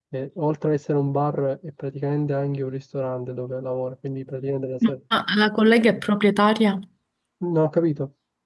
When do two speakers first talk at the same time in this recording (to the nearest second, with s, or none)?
none